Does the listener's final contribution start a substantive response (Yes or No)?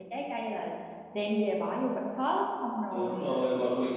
Yes